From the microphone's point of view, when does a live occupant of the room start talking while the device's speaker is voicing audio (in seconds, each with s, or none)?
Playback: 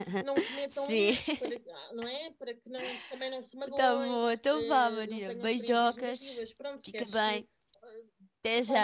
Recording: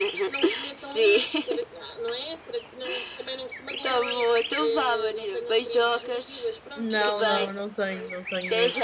6.8 s